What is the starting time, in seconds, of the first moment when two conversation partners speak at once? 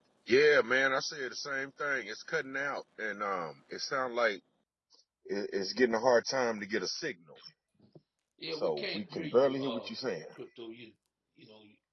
9 s

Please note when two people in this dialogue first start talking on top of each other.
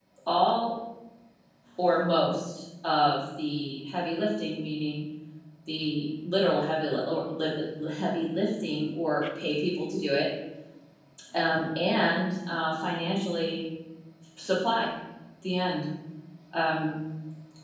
none

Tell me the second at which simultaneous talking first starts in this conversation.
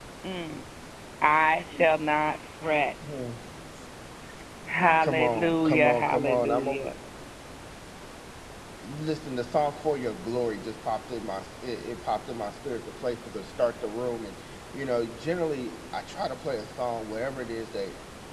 5 s

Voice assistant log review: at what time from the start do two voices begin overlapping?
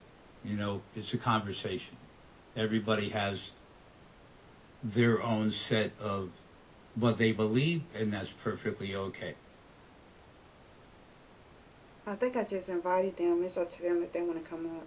none

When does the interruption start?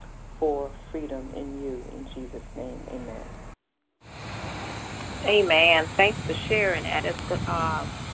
none

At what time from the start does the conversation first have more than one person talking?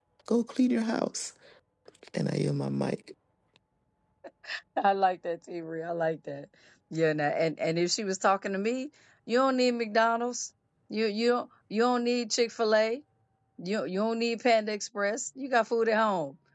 none

